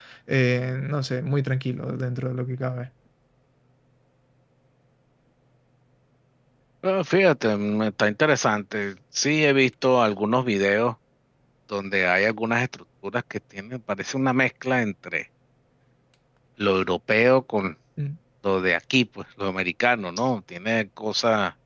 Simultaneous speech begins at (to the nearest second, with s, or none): none